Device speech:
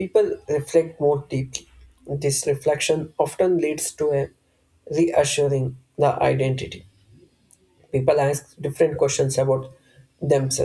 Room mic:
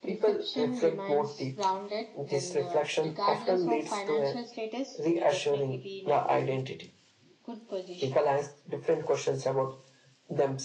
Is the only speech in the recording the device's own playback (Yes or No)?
No